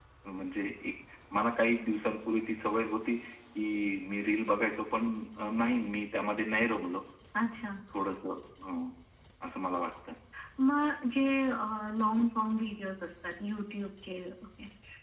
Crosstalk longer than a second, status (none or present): none